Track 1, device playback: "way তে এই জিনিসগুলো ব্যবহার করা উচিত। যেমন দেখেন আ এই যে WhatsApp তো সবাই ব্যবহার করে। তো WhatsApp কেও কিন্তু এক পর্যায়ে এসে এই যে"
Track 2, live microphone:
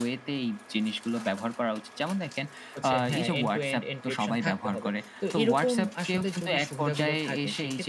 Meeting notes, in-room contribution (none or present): present